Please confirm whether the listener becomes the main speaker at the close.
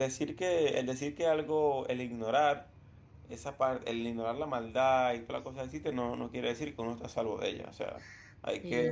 Yes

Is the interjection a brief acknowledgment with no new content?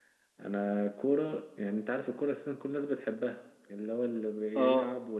Yes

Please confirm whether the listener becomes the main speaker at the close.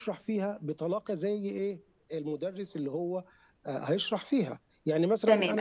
Yes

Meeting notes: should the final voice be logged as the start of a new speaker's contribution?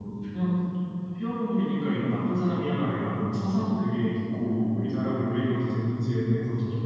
No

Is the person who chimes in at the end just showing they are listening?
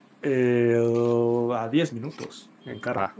Yes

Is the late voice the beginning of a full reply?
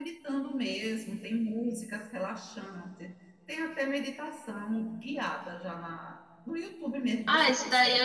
Yes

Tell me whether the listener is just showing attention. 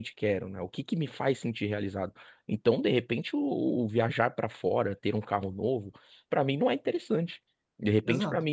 Yes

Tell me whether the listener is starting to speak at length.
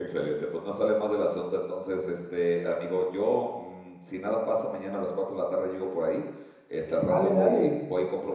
No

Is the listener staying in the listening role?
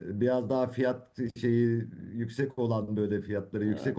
Yes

